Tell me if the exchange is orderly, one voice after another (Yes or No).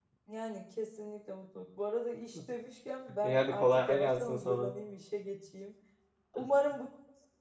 No